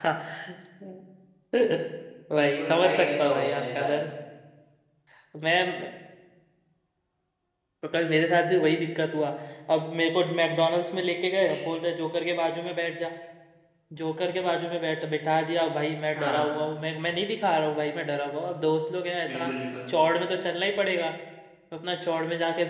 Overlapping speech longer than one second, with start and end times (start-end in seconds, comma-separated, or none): 2.4-3.9